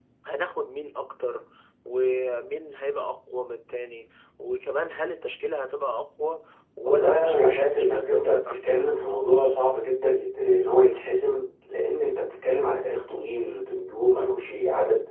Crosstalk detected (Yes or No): Yes